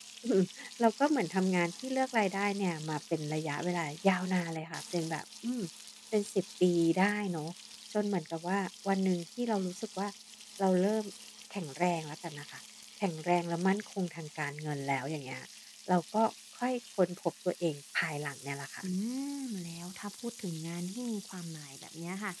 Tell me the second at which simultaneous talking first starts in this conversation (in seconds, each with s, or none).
none